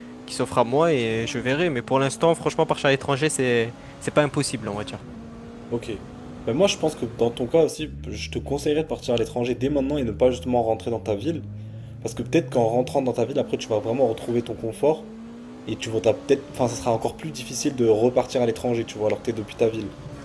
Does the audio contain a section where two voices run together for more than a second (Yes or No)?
No